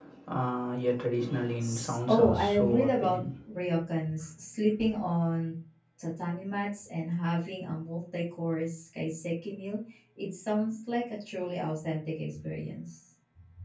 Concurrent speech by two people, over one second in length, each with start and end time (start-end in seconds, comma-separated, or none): 1.6-3.2